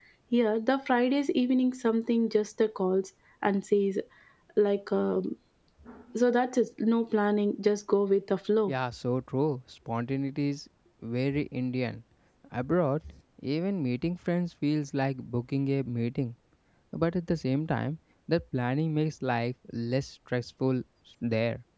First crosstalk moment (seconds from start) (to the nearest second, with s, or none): none